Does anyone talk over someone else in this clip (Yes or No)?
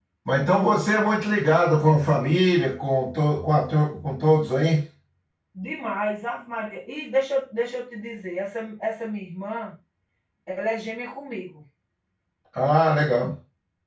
No